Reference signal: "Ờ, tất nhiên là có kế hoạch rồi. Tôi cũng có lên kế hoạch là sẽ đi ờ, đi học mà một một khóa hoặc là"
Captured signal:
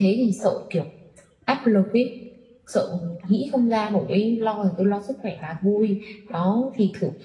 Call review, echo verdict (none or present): none